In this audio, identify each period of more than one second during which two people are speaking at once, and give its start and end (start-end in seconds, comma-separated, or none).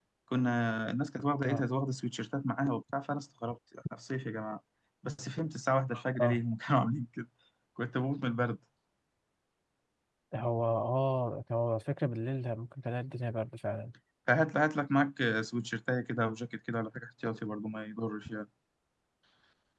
none